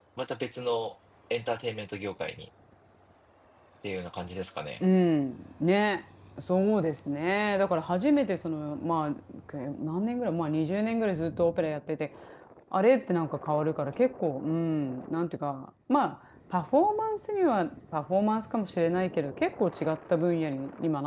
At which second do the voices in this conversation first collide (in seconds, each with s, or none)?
none